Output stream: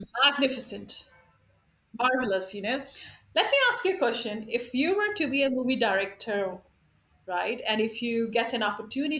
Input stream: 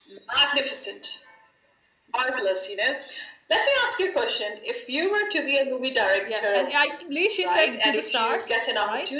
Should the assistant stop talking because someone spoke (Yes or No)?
Yes